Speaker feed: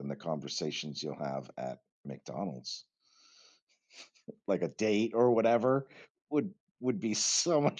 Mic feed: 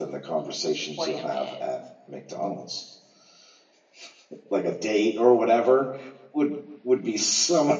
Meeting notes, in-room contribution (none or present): present